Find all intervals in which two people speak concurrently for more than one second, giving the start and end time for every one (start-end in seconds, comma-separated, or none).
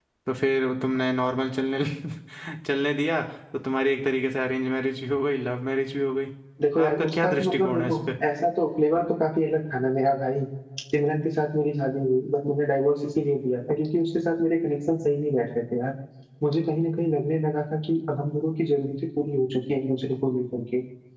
6.8-8.0